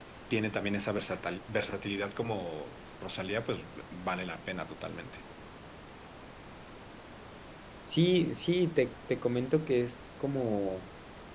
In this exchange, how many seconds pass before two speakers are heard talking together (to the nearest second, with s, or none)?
none